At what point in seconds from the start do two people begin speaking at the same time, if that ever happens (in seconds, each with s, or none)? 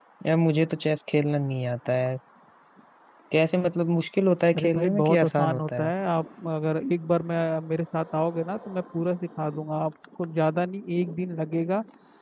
4.5 s